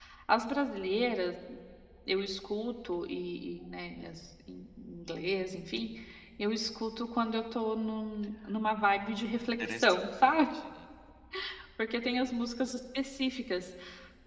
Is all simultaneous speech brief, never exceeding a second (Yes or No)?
No